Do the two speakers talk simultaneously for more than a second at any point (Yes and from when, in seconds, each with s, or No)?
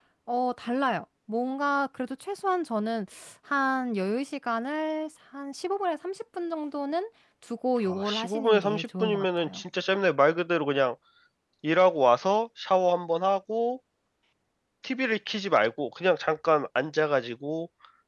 Yes, from 7.8 s